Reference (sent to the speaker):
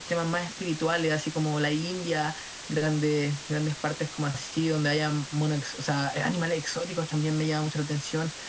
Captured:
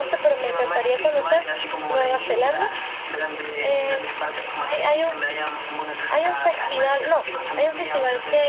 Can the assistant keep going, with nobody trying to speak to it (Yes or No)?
No